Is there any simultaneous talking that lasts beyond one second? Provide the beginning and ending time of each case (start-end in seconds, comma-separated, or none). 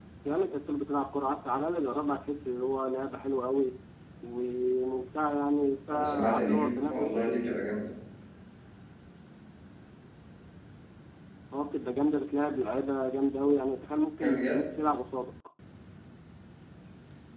5.9-7.4